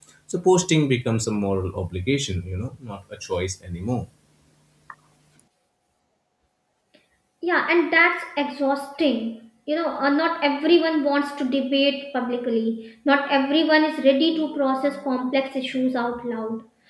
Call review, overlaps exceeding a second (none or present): none